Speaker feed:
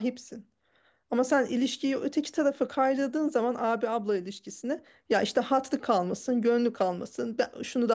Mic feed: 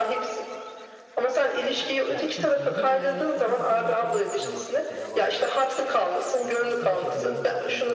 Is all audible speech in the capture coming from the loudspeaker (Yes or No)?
No